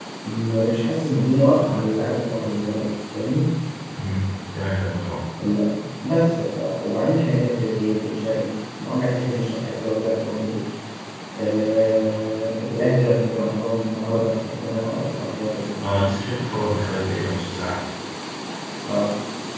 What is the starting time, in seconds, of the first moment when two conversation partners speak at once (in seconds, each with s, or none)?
none